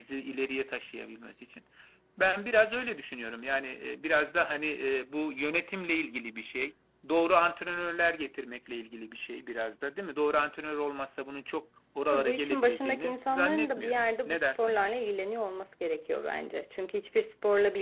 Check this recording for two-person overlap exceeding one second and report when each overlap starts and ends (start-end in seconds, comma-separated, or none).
12.1-14.8